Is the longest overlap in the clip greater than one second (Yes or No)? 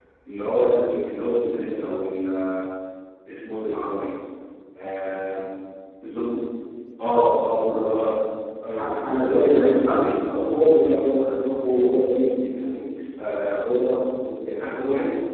Yes